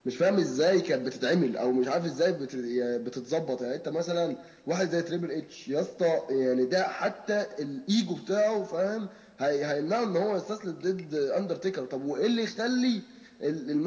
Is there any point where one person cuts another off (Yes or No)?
No